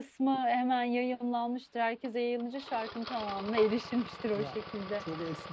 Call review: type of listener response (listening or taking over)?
taking over